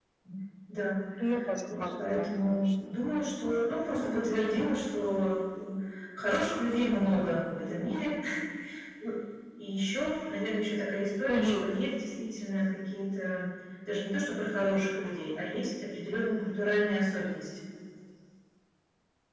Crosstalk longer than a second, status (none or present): present